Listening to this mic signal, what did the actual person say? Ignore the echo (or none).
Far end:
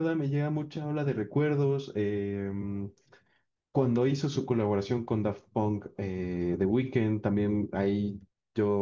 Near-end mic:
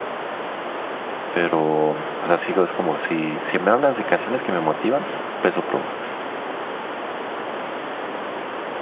pero, o sea, sigo, es como si, si me hablas de canciones que me motivan, s- Peso Pluma,